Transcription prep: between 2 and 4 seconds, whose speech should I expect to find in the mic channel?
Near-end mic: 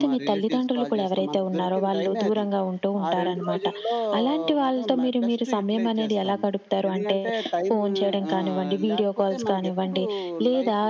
echo only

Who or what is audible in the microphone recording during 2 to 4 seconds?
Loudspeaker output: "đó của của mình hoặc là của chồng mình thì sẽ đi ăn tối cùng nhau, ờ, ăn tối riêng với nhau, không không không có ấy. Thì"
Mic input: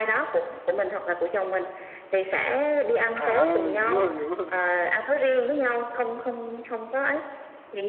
both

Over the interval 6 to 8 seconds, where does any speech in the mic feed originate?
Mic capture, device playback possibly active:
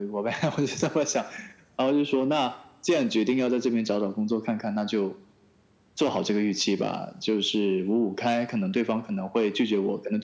echo only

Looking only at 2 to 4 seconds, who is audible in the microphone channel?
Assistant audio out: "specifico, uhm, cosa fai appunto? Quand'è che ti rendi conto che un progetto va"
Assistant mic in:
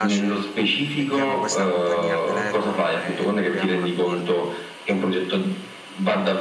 both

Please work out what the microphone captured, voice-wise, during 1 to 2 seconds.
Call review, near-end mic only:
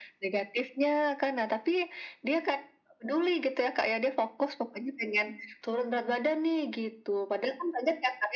echo only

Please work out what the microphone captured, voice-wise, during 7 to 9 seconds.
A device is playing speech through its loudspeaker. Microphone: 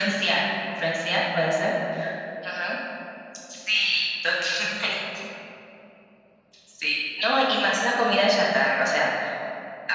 echo only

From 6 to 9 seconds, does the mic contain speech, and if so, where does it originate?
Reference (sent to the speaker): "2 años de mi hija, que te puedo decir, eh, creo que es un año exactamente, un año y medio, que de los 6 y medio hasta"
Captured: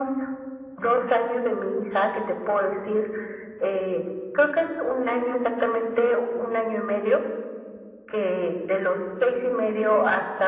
echo only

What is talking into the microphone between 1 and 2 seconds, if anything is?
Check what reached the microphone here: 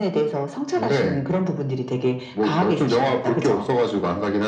echo only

